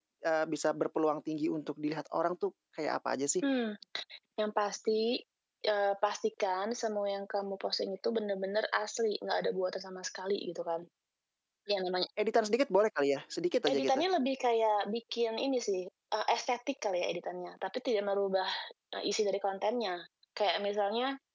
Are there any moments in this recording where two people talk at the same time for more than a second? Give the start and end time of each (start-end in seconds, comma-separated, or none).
none